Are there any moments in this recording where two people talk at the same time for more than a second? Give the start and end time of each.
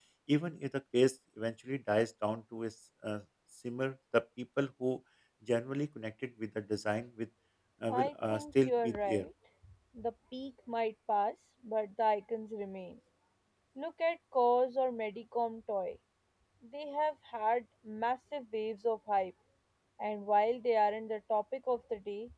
7.9-9.2

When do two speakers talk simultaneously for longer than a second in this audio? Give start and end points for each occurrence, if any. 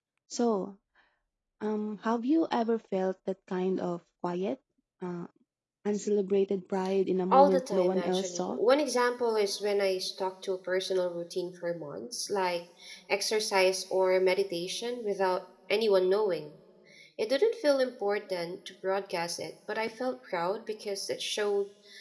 7.3-8.6

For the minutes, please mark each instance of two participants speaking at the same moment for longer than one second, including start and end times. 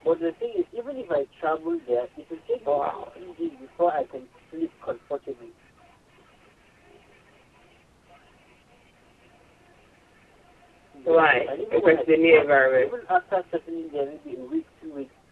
11.1-13.1

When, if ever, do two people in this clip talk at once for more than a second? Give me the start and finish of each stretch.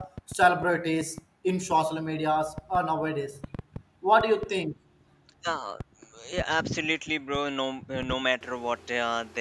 none

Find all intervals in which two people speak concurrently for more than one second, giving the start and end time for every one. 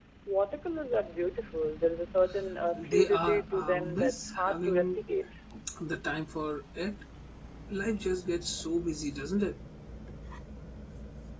2.8-5.0

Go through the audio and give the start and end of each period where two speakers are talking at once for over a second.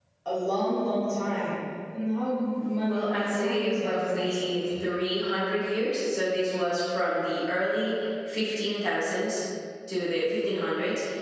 2.9-4.6

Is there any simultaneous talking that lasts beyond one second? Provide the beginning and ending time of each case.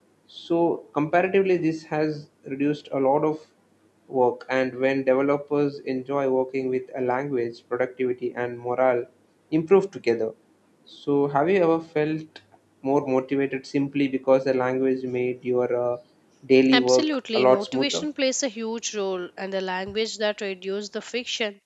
16.7-18.0

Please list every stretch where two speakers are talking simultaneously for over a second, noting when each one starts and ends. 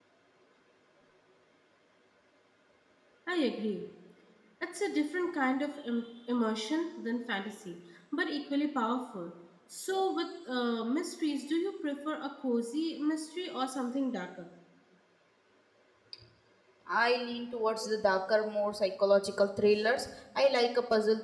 none

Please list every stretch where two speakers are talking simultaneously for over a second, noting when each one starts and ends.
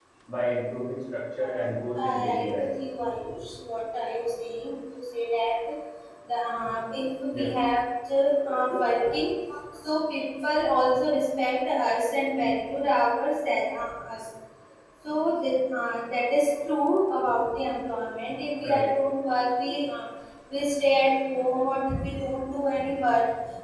1.4-2.6

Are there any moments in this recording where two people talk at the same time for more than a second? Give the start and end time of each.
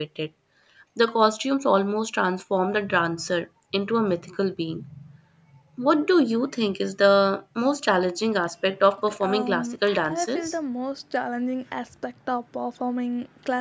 9.1-10.6

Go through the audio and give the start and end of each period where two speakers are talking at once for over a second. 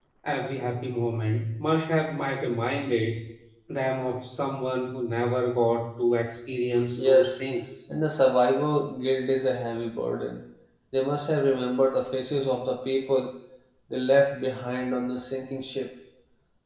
none

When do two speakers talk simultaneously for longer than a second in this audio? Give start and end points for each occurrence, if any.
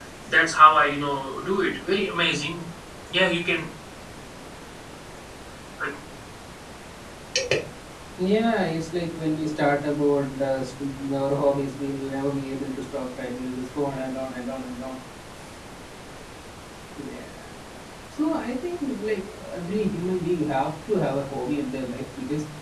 none

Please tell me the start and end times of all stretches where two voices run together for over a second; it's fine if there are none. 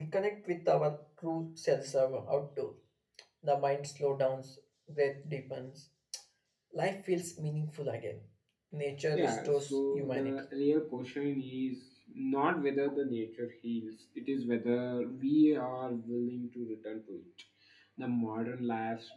9.1-10.4

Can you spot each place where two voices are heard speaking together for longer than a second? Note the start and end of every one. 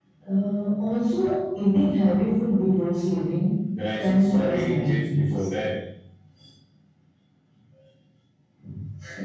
4.0-5.5

